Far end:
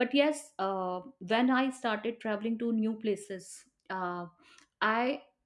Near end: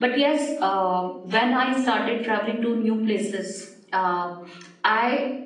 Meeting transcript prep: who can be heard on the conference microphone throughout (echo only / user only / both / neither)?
echo only